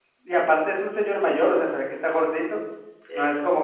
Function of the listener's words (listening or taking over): listening